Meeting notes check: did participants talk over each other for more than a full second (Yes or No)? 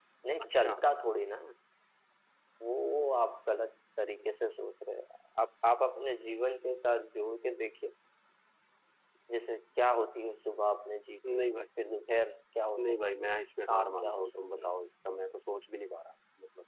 Yes